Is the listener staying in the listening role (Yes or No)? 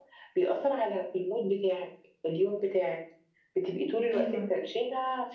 Yes